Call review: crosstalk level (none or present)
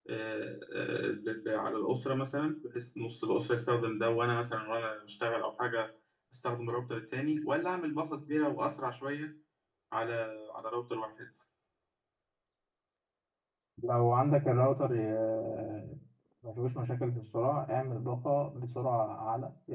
none